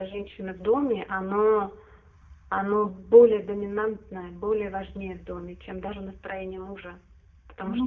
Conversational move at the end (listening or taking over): taking over